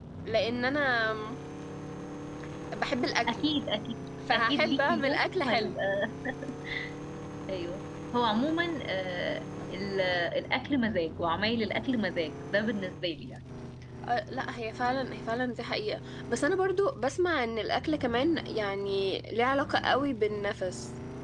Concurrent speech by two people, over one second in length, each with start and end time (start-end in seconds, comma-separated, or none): 4.3-5.8